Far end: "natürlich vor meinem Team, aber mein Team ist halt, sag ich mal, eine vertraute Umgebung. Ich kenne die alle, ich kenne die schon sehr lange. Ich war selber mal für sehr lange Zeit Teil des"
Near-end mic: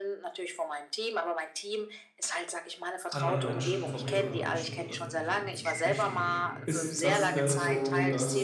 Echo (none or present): present